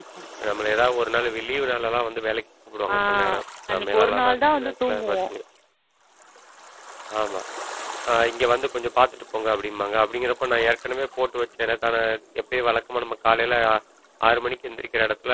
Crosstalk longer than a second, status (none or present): present